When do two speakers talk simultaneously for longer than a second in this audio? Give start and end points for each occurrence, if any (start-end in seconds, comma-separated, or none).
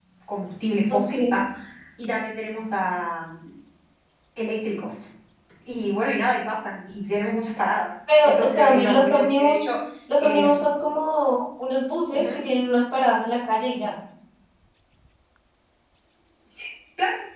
8.2-9.7